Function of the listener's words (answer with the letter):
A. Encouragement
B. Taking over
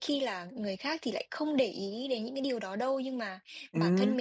A